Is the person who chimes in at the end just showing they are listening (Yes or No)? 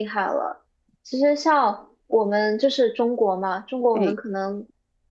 Yes